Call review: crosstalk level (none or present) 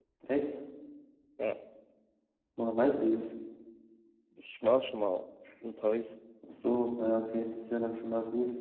none